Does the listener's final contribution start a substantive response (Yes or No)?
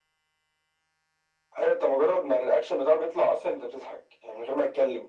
No